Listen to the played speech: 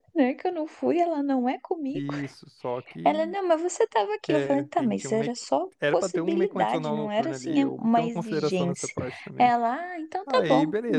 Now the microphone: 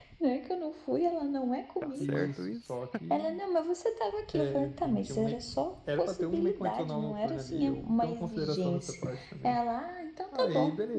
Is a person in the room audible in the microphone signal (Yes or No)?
Yes